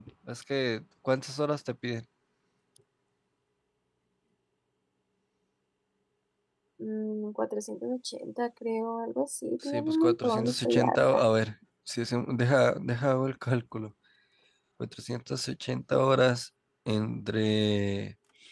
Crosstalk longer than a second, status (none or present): present